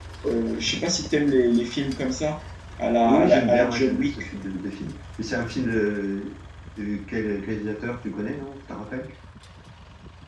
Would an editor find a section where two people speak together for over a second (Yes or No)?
Yes